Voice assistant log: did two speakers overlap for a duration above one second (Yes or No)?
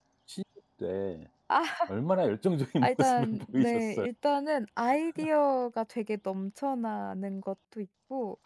Yes